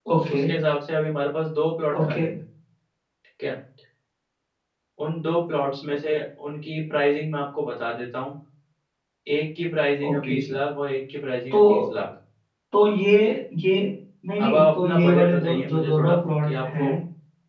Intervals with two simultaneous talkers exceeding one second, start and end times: 14.4-16.9

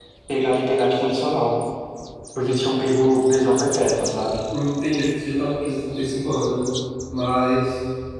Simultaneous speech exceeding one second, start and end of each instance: none

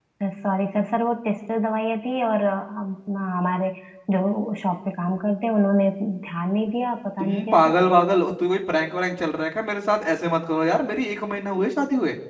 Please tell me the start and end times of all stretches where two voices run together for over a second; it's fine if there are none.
none

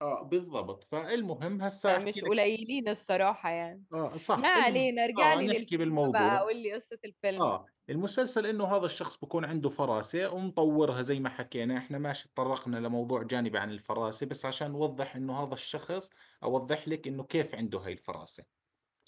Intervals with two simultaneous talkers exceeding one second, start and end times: 4.4-6.4

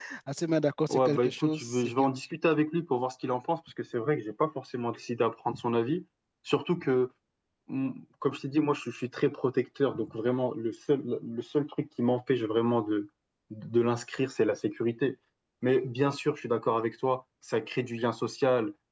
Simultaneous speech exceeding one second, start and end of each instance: 0.9-2.1

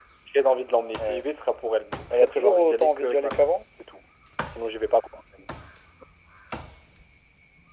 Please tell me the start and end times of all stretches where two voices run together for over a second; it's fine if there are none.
2.1-3.4

